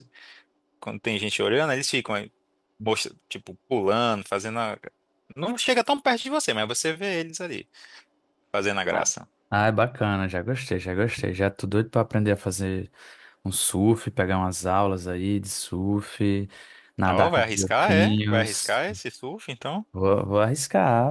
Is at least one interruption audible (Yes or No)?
Yes